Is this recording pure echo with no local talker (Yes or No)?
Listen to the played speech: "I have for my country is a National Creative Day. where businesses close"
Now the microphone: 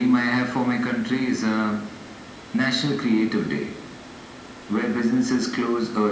Yes